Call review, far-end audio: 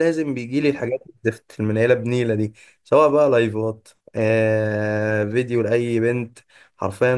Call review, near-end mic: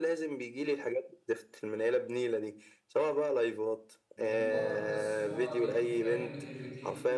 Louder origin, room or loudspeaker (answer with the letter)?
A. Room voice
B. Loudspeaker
B